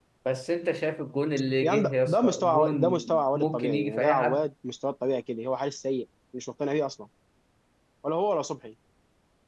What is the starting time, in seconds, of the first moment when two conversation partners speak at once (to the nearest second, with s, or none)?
2 s